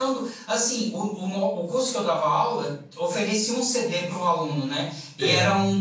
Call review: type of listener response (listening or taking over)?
listening